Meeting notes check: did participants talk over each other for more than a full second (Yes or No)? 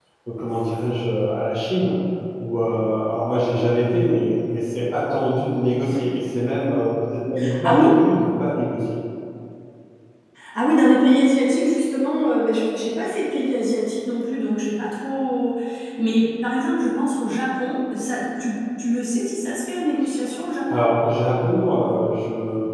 No